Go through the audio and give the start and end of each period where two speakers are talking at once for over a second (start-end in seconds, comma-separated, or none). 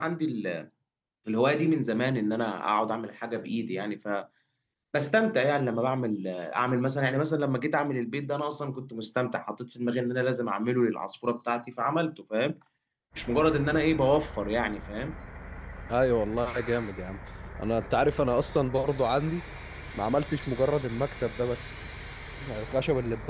none